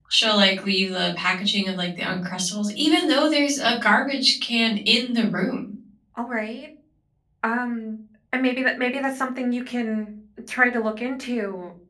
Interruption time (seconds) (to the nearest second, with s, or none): none